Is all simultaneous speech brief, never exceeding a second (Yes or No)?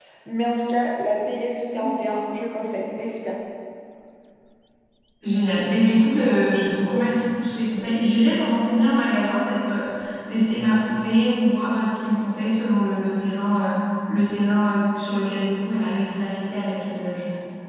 Yes